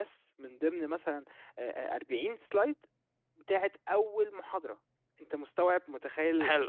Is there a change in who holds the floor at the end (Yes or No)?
Yes